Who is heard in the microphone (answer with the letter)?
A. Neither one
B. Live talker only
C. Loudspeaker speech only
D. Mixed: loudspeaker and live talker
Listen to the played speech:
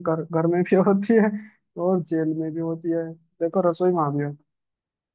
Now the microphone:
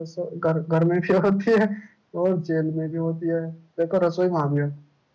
C